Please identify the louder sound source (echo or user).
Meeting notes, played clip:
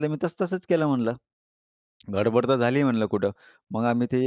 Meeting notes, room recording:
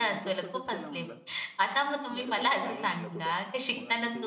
user